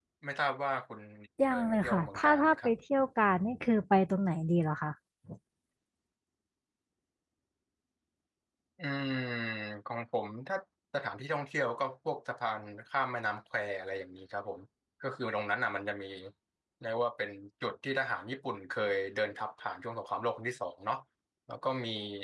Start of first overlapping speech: 1.5 s

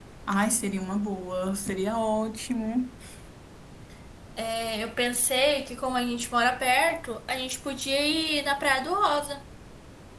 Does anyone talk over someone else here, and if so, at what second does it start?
none

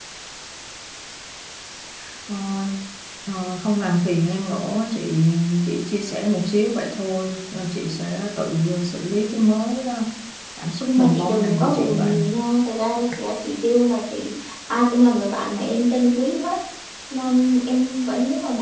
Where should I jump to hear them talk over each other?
10.8 s

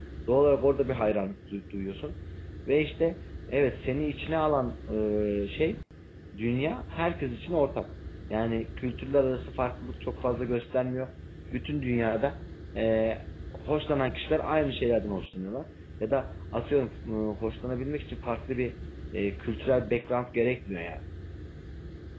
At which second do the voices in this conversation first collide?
none

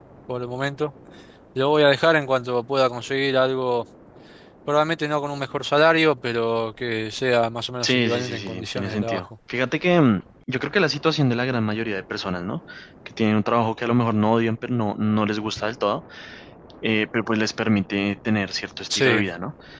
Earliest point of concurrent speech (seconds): 7.8 s

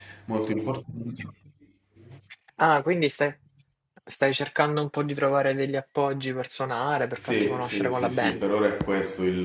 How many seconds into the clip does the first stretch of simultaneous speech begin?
7.2 s

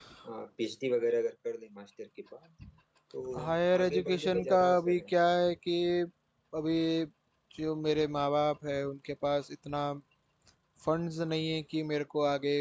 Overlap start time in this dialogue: 3.4 s

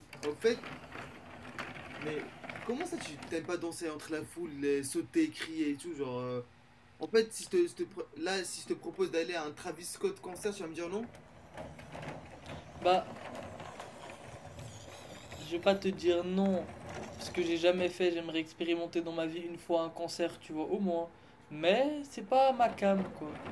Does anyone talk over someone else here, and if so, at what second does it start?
none

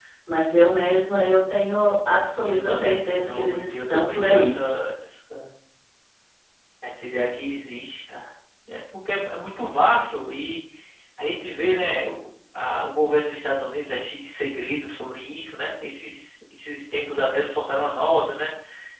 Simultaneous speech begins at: 2.5 s

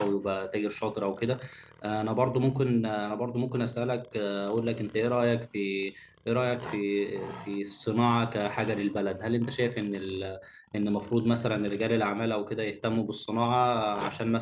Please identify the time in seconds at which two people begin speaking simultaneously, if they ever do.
none

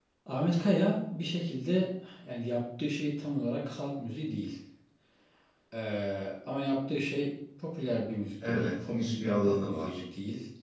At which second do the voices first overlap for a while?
8.4 s

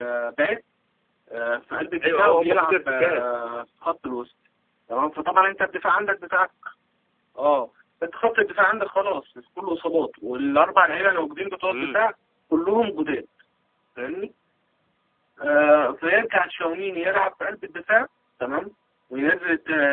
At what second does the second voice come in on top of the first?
2.0 s

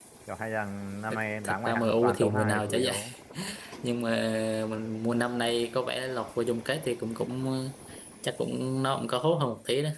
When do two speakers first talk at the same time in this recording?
1.1 s

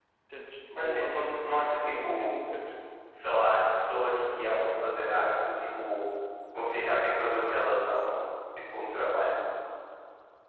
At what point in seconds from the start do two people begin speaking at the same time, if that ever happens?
0.8 s

